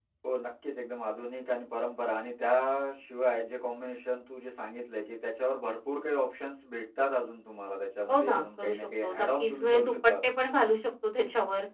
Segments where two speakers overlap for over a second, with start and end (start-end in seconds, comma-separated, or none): 8.1-10.1